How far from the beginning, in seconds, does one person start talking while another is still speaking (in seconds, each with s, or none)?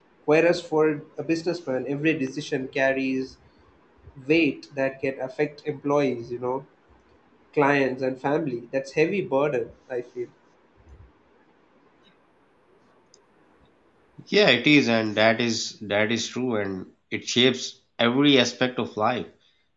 none